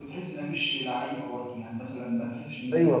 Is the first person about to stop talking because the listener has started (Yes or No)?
Yes